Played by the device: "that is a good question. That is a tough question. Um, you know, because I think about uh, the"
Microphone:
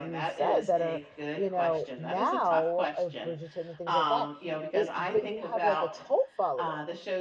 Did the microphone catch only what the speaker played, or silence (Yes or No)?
No